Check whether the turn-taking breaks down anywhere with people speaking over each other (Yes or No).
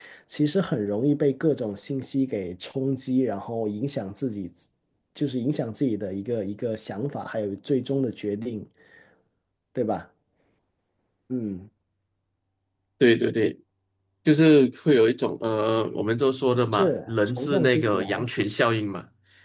Yes